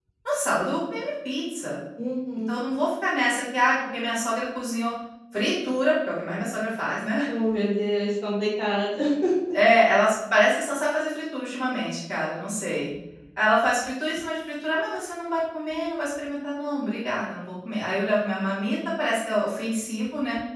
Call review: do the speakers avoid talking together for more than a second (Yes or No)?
Yes